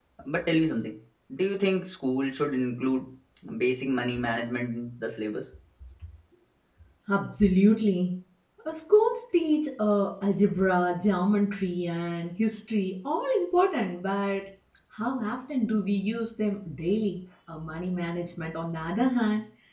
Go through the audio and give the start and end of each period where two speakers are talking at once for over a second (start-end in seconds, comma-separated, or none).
none